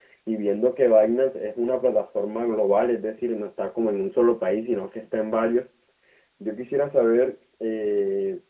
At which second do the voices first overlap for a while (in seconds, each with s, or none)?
none